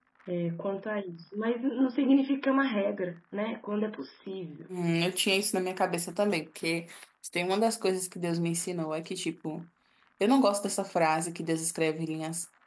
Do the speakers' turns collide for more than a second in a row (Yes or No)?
No